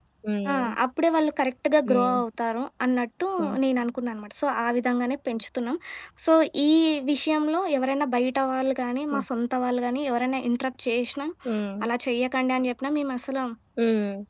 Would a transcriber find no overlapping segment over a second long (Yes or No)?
Yes